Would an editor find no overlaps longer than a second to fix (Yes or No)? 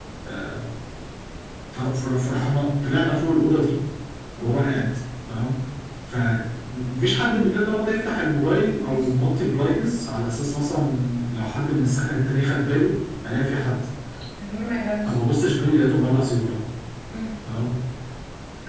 Yes